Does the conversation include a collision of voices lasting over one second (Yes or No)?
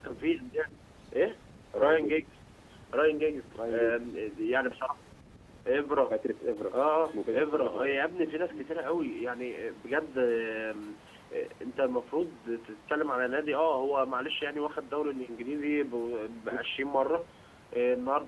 Yes